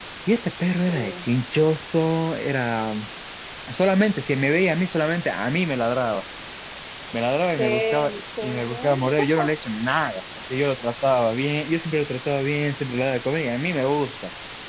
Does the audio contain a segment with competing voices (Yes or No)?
Yes